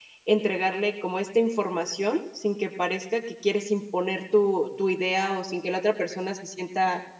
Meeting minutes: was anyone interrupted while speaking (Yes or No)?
No